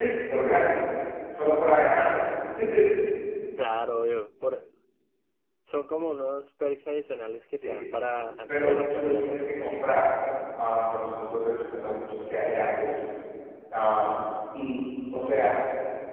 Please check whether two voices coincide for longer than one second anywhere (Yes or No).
Yes